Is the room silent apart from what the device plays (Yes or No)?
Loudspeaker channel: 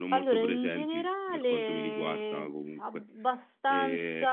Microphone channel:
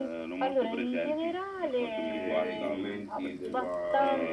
No